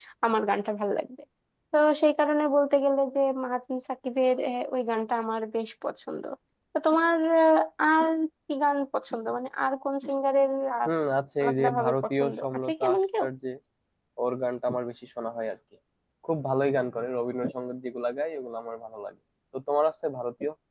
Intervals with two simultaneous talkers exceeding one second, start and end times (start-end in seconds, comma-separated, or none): 11.4-13.2